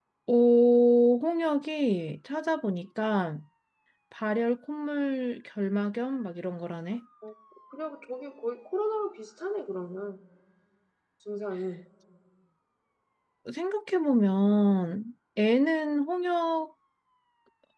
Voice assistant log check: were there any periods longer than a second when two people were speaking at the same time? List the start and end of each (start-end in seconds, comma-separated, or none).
none